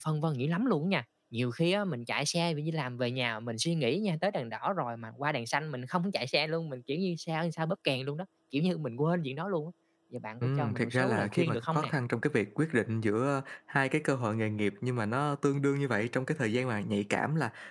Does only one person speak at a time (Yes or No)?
No